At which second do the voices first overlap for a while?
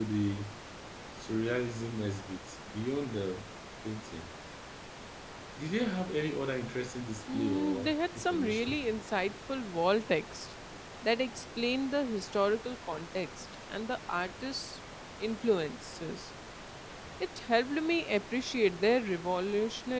7.3 s

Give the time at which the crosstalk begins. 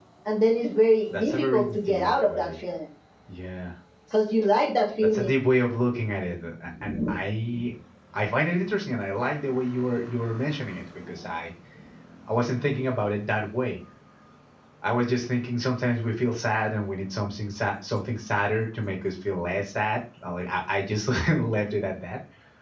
1.2 s

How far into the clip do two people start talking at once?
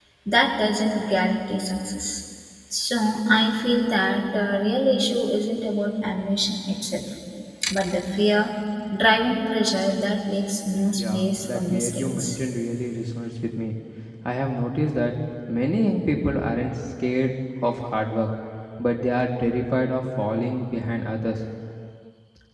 10.9 s

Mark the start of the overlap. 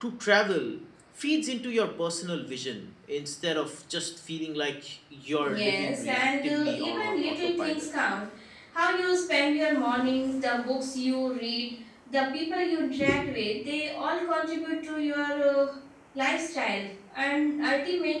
5.5 s

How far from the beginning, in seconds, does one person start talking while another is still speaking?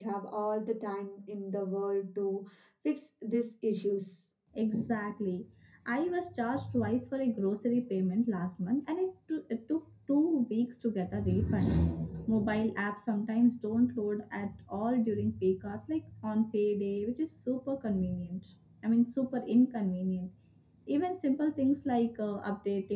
none

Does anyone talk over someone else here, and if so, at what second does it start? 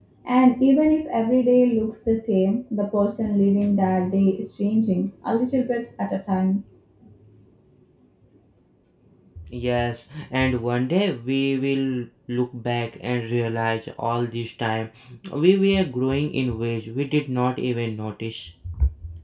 none

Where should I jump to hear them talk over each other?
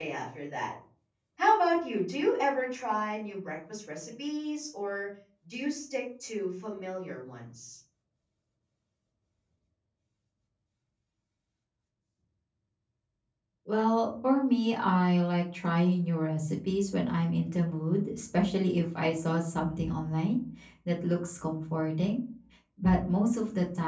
none

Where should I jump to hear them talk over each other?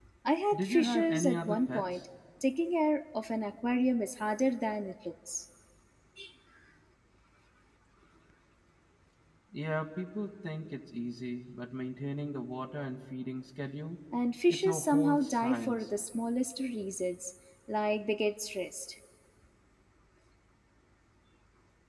0.5 s

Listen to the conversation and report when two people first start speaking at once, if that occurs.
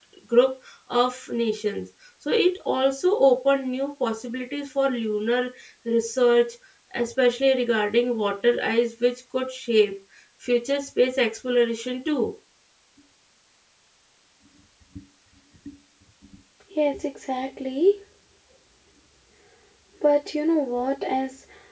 none

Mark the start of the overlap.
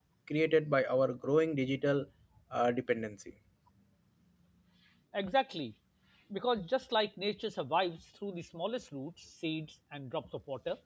none

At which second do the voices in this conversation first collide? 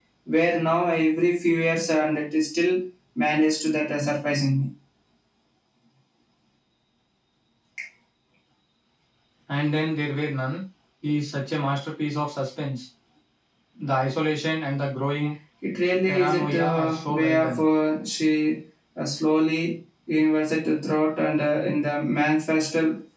16.1 s

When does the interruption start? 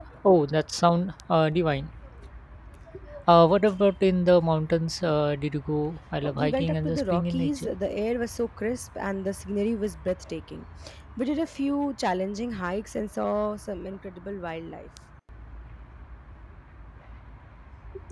6.2 s

